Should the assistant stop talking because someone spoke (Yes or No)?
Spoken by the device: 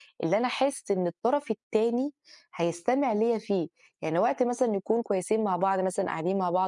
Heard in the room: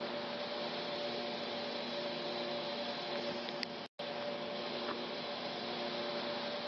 No